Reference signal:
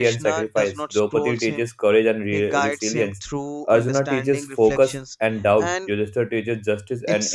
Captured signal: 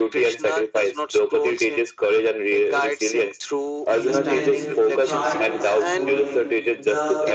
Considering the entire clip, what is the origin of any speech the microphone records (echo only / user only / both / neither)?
both